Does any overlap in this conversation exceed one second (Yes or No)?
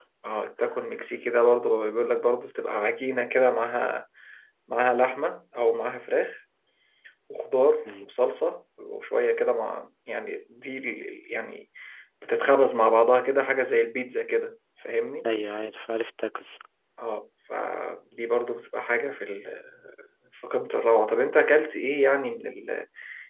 No